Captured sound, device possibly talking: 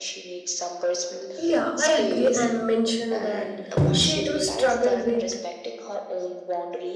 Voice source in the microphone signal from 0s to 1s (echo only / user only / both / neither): echo only